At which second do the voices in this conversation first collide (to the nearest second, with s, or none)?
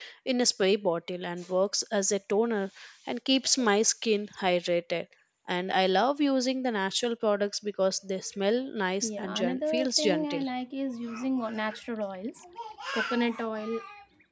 9 s